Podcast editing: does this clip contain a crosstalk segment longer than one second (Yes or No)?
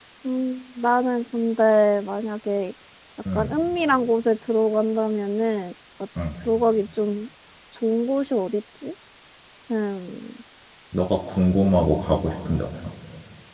No